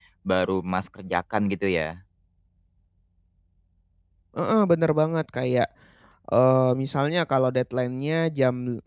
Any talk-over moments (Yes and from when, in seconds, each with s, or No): No